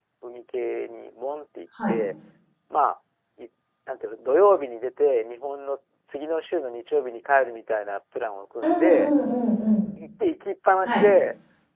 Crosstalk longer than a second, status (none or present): none